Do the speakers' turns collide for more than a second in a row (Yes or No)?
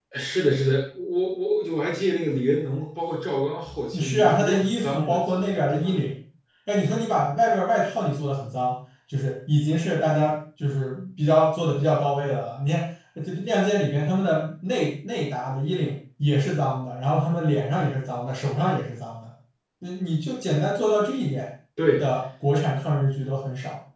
Yes